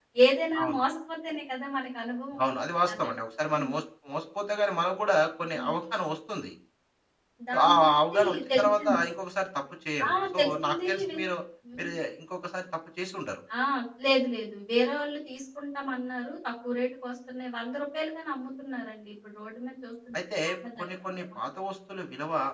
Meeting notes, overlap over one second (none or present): present